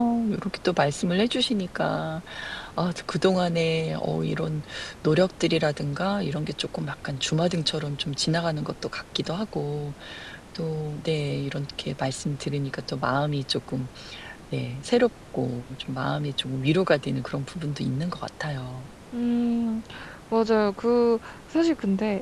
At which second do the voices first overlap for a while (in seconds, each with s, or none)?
none